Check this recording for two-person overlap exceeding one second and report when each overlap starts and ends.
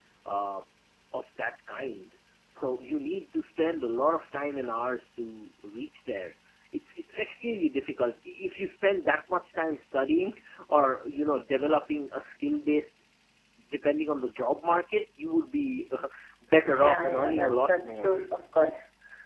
16.8-18.1

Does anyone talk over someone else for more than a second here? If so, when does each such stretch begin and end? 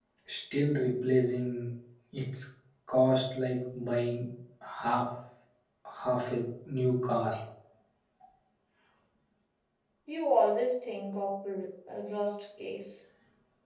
none

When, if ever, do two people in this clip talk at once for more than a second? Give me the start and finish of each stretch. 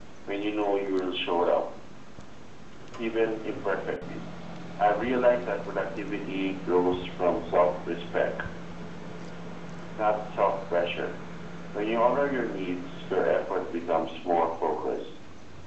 none

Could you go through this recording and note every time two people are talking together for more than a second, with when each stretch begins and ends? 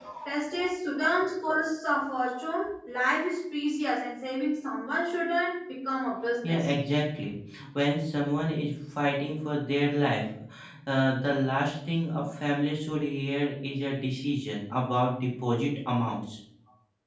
none

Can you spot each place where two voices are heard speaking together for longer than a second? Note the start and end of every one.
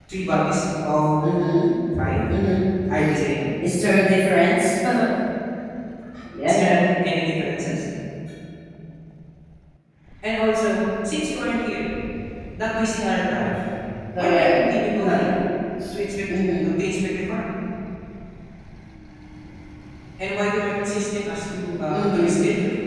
none

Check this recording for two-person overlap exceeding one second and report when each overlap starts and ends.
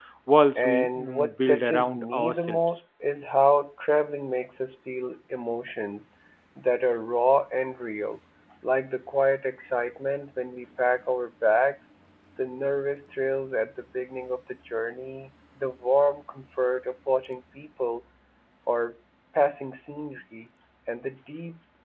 0.6-2.8

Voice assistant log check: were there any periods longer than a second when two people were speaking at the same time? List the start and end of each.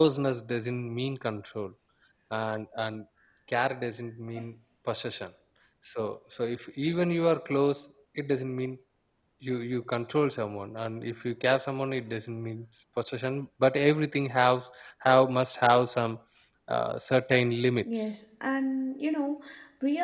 none

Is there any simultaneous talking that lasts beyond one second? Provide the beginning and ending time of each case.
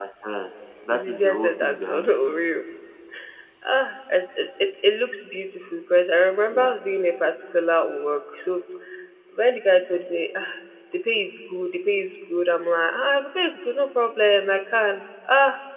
0.9-2.2

